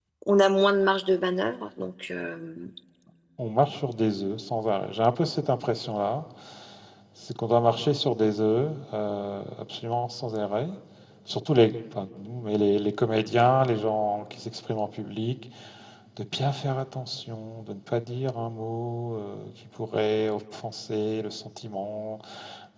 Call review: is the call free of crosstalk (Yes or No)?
Yes